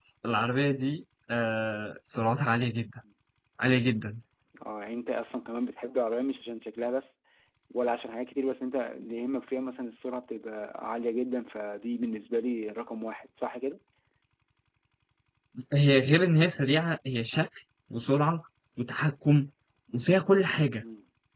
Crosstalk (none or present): none